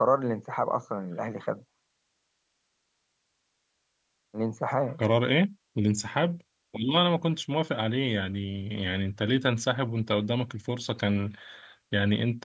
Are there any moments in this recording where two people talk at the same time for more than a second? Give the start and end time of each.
none

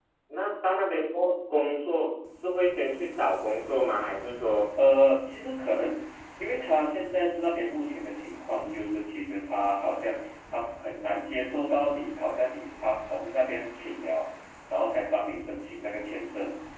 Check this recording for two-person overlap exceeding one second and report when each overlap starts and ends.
none

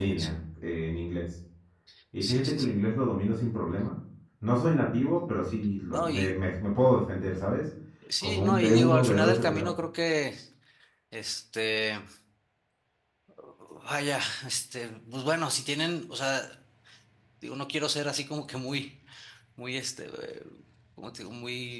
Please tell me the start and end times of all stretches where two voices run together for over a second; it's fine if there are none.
8.2-9.7

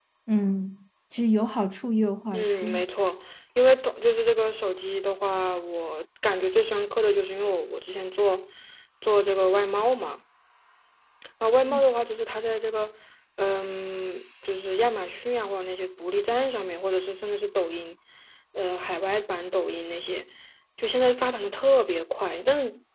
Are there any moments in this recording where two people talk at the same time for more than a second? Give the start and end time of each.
none

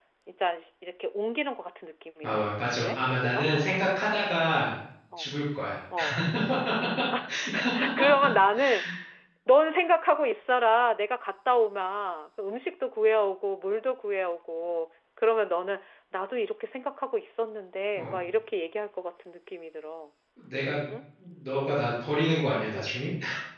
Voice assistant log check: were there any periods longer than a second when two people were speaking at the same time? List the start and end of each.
2.2-3.5

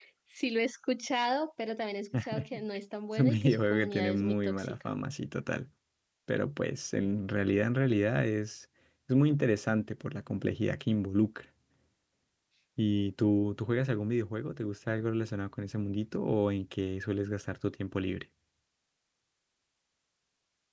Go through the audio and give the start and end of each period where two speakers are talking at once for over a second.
3.2-4.9

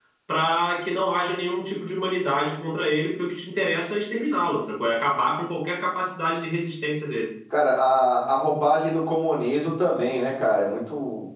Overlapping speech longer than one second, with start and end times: none

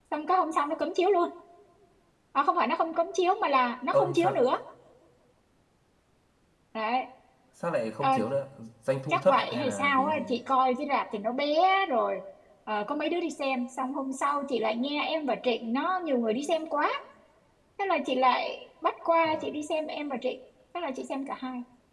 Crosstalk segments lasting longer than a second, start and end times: 9.1-10.4

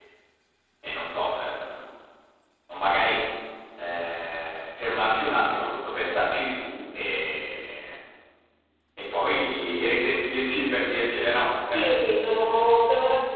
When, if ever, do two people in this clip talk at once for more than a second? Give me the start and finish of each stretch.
none

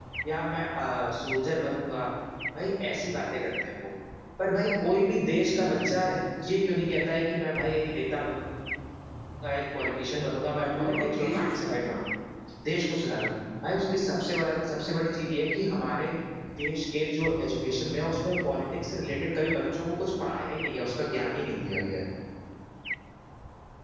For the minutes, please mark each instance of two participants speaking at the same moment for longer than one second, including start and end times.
10.6-11.9

